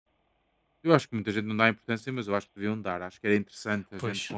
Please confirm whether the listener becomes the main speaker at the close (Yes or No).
No